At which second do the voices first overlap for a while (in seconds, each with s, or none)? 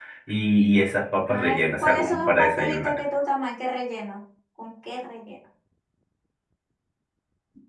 1.3 s